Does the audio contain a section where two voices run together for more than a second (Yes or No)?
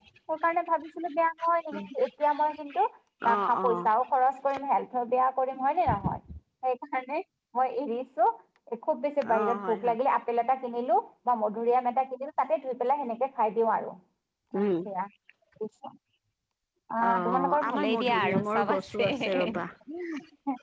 Yes